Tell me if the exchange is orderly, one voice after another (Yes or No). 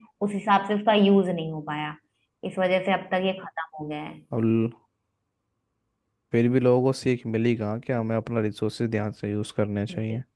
Yes